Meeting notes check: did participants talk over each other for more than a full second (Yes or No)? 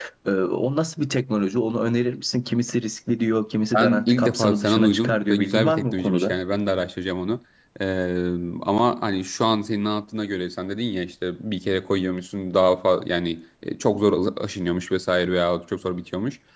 Yes